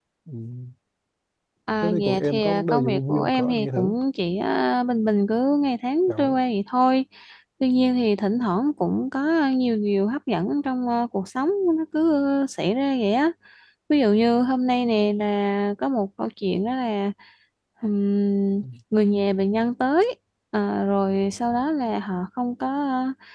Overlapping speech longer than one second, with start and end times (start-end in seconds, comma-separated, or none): 1.8-3.9